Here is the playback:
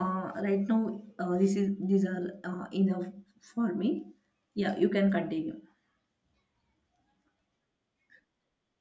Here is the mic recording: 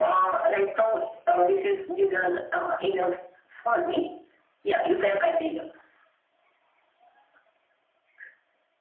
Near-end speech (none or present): none